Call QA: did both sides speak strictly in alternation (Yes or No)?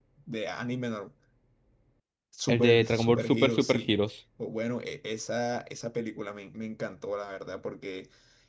No